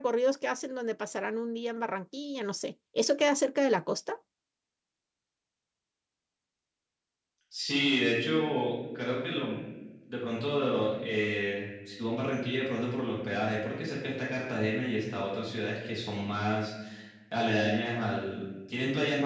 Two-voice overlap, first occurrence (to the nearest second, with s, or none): none